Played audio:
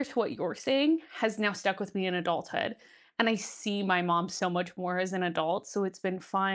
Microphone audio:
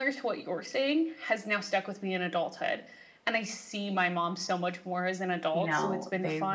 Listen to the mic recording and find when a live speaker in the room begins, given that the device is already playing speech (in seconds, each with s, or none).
5.5 s